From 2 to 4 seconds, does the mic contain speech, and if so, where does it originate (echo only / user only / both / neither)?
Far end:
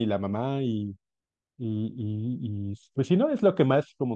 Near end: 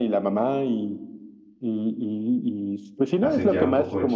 both